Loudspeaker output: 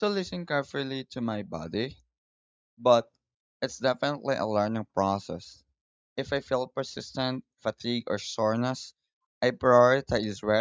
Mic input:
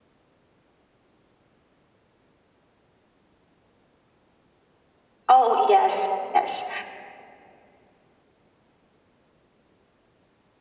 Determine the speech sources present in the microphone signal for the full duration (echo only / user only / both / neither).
user only